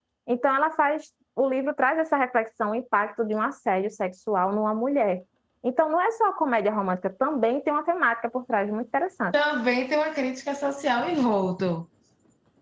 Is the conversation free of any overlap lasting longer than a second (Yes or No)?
Yes